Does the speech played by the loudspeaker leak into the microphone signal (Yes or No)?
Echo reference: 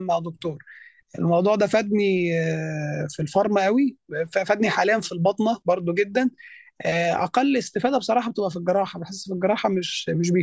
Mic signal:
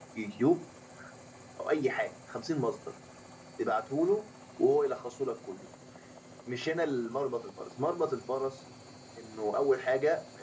No